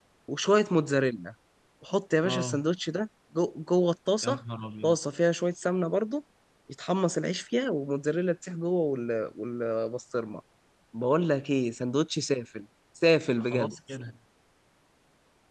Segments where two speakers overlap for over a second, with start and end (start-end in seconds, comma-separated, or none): none